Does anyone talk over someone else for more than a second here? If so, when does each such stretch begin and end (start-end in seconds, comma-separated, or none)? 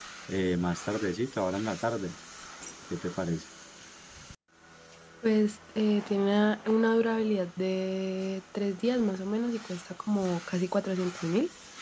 none